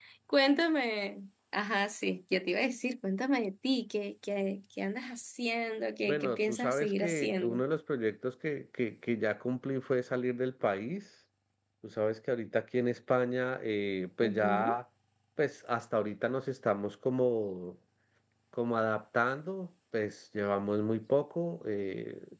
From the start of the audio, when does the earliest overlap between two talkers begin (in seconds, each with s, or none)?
6.1 s